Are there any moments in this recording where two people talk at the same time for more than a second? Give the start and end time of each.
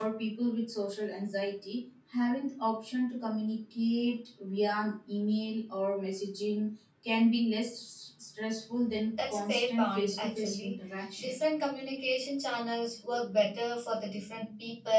9.3-10.7

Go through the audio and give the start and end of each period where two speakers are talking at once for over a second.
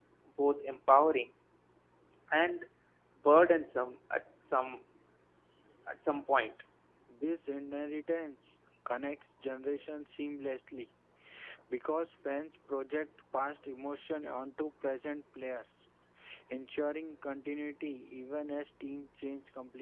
none

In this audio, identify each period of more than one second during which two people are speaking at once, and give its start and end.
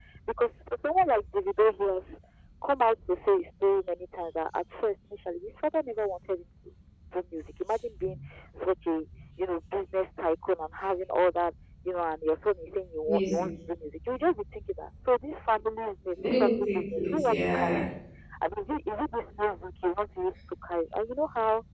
16.2-17.8

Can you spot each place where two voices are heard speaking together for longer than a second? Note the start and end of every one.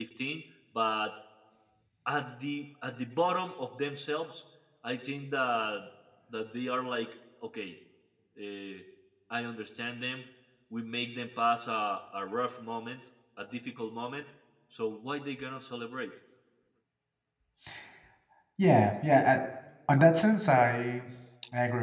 none

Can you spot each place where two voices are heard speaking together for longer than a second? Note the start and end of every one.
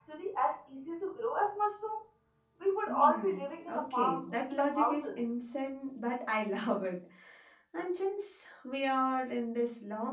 2.9-5.2

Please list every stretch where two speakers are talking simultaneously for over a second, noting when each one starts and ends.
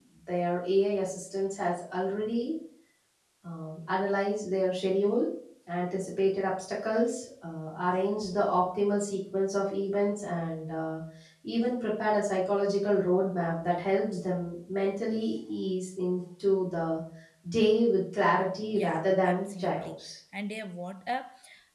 18.7-20.0

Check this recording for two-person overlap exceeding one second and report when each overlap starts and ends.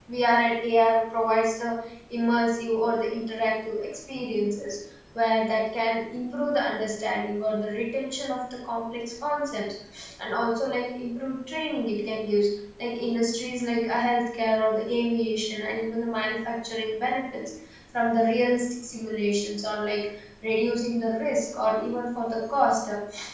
none

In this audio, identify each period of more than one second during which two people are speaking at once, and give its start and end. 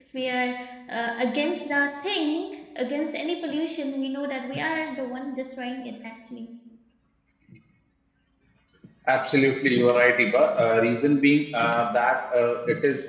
none

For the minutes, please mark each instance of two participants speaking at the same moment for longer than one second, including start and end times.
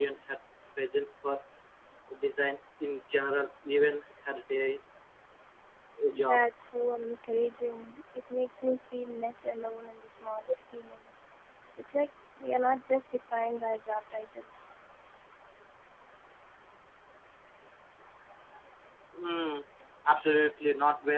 none

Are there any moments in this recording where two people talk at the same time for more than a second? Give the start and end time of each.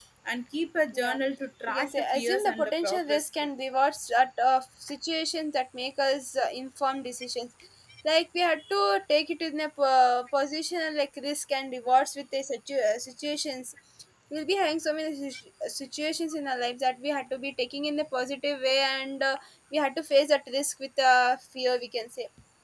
1.7-3.3

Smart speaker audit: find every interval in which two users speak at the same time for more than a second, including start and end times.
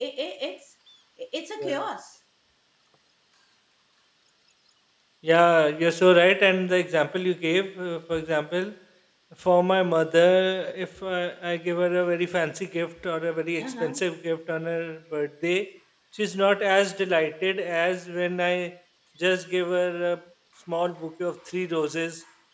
none

